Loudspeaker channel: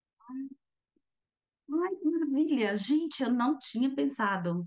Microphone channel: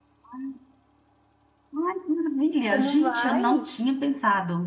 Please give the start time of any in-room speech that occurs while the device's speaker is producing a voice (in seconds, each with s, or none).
2.6 s